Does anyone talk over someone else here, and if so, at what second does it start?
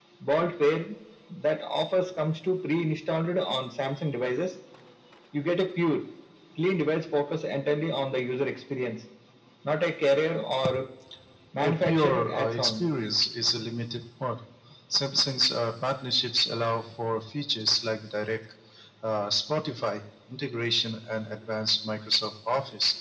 11.6 s

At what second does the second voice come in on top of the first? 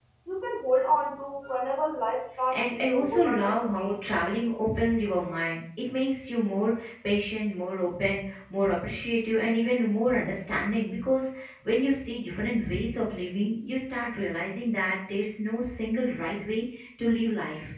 2.5 s

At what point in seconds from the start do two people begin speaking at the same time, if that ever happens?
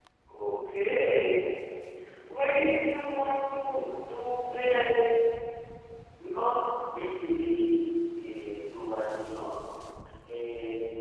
none

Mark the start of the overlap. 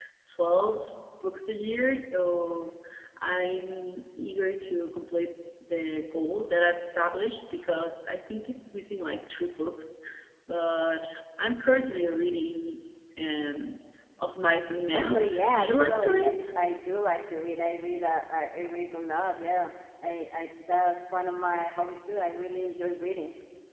14.9 s

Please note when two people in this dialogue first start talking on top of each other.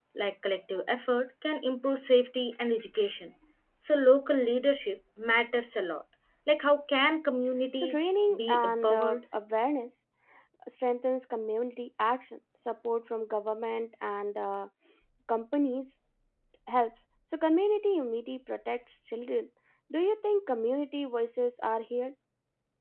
7.7 s

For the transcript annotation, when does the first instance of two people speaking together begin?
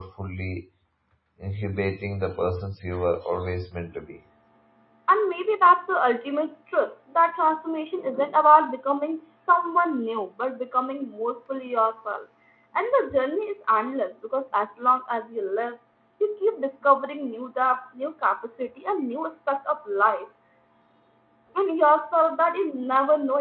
none

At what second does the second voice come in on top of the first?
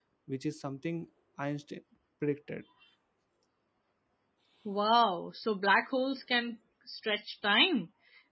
none

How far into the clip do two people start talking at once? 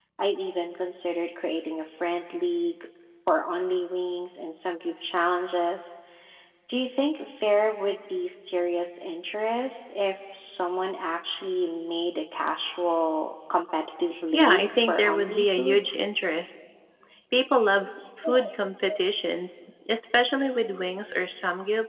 14.1 s

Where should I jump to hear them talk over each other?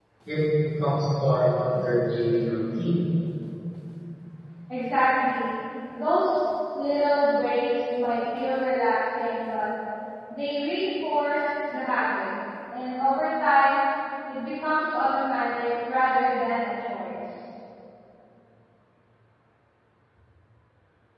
none

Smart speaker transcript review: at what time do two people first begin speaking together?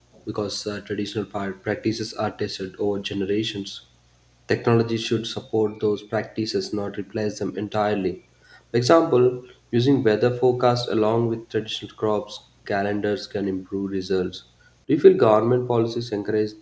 none

